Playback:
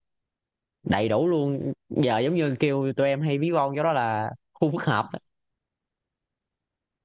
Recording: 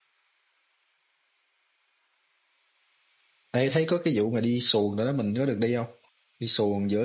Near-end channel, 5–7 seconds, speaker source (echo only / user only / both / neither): user only